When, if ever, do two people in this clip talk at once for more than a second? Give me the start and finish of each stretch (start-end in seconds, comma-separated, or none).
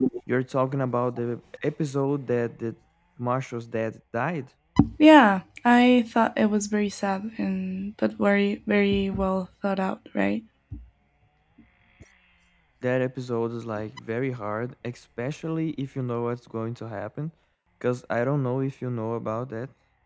none